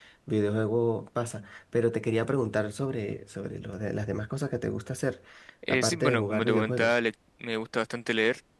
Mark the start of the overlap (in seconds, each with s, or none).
5.7 s